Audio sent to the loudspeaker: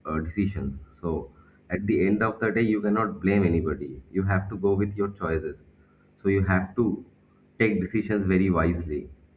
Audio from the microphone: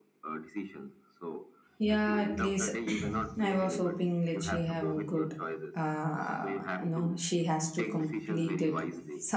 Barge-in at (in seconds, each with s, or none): 1.8 s